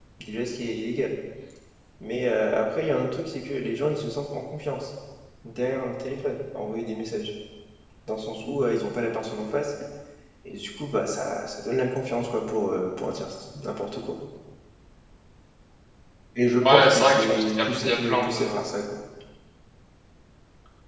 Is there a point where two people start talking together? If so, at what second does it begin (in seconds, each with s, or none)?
16.6 s